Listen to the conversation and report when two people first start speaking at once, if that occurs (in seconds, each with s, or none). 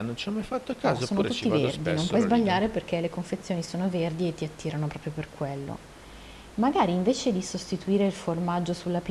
0.8 s